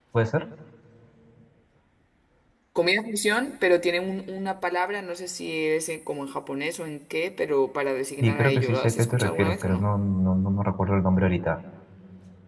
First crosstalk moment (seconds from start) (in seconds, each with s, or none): 8.2 s